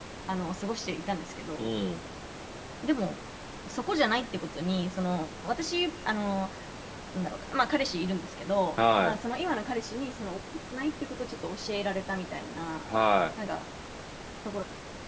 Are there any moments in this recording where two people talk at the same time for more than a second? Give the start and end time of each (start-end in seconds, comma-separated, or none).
none